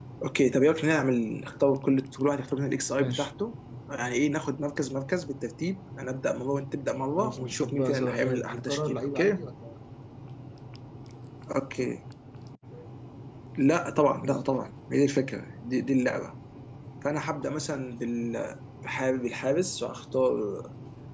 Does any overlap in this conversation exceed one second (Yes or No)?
Yes